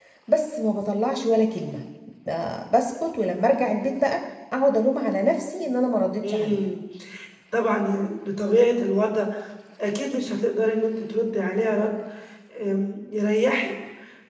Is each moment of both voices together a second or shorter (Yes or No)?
Yes